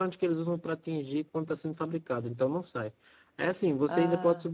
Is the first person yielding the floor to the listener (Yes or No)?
No